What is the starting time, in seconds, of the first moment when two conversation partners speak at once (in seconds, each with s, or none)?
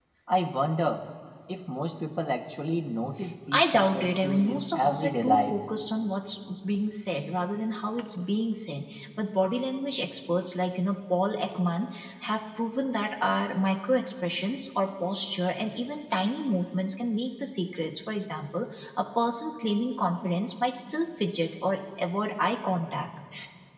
3.5 s